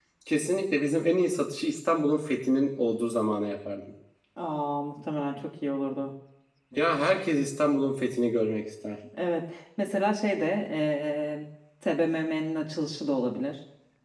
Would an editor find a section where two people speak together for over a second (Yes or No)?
No